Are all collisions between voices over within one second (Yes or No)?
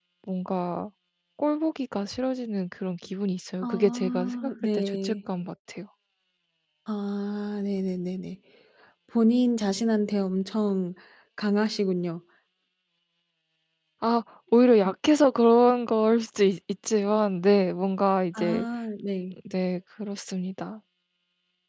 No